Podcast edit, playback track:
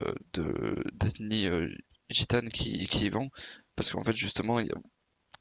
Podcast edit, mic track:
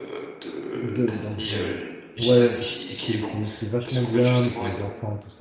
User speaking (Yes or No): Yes